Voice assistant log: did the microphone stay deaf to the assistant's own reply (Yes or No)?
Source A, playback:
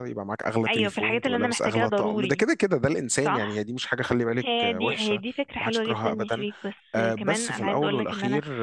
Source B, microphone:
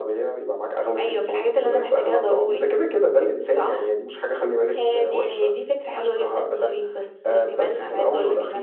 No